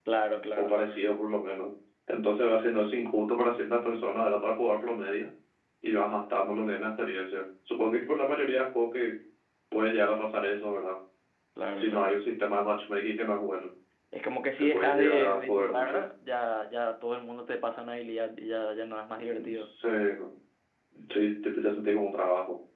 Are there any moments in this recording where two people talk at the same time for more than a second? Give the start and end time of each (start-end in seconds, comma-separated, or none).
14.6-16.1